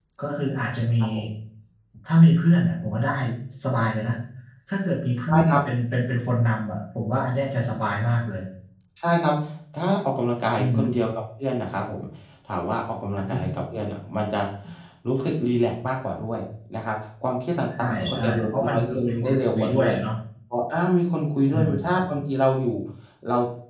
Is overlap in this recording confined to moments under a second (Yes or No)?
No